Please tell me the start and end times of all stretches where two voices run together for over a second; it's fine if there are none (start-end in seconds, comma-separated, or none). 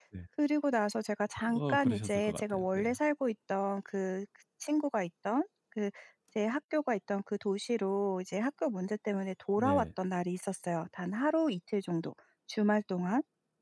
1.5-2.8